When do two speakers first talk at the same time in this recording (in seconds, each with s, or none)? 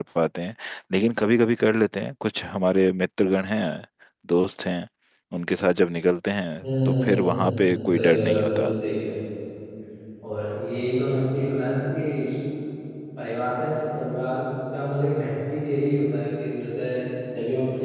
6.6 s